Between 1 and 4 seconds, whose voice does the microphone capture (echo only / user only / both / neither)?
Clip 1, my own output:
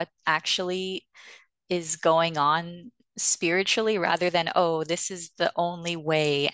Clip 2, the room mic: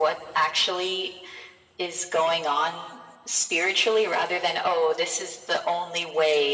echo only